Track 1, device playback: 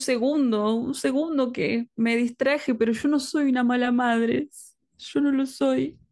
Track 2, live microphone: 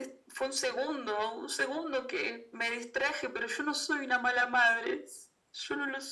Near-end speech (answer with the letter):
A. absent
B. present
A